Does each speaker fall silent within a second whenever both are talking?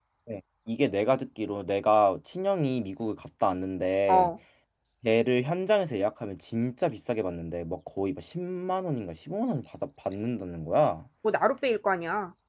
Yes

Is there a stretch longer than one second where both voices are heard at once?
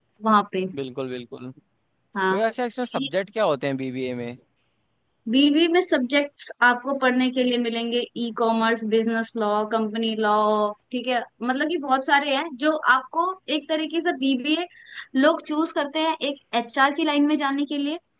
No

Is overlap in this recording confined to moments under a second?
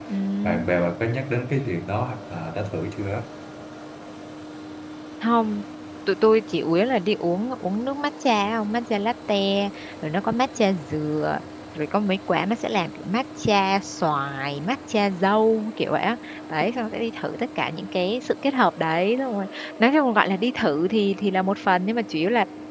Yes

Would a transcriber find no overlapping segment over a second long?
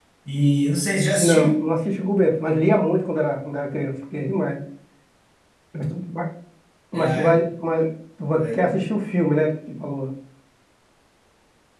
Yes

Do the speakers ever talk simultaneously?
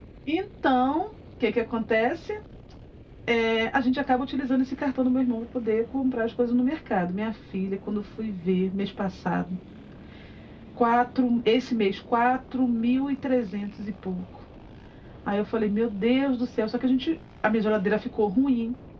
No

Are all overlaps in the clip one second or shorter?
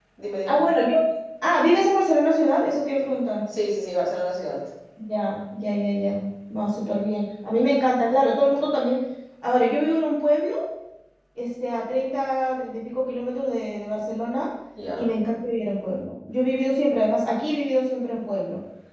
Yes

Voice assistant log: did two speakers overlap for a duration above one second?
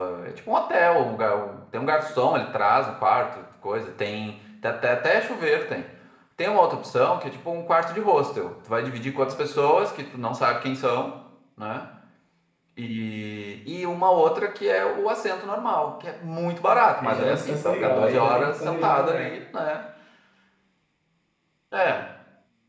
Yes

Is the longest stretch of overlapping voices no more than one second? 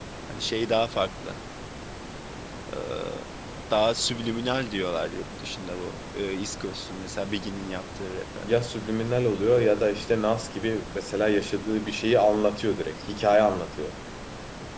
Yes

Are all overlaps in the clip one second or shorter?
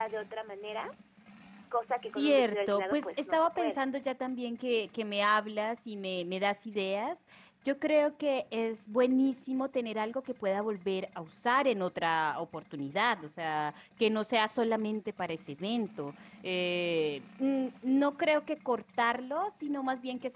No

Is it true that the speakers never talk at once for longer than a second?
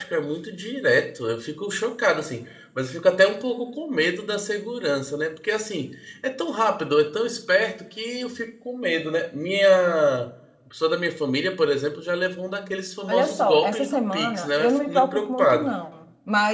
No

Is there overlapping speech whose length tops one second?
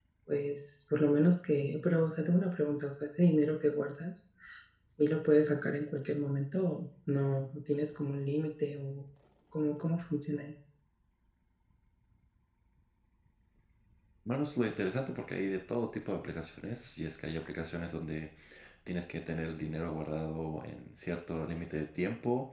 No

